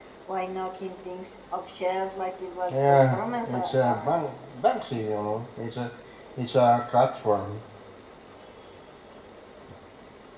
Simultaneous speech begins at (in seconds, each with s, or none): 2.7 s